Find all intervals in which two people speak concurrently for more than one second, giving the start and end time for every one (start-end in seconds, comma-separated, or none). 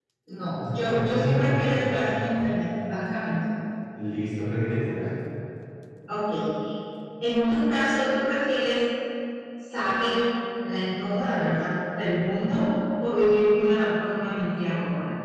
0.7-2.2